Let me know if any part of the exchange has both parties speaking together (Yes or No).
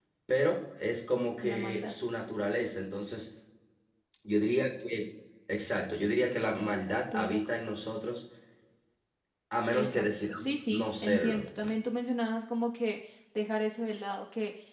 Yes